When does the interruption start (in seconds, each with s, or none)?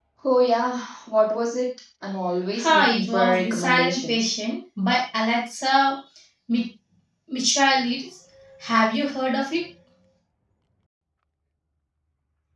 2.5 s